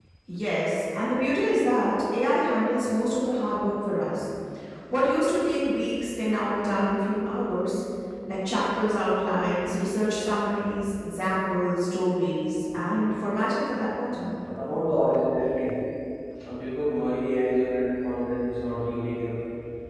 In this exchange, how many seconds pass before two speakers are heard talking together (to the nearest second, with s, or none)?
none